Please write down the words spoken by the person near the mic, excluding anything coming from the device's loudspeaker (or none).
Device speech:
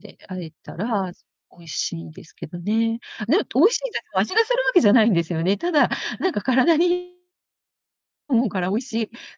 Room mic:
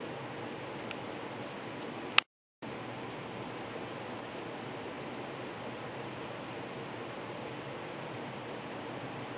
none